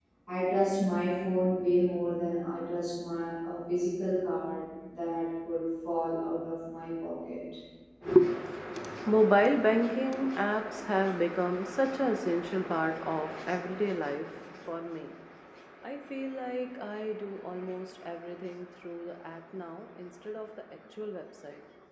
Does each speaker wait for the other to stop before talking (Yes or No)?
Yes